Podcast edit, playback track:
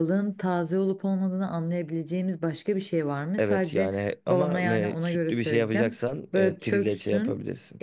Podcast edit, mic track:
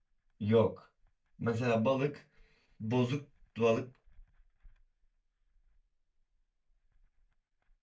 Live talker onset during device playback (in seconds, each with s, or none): 0.4 s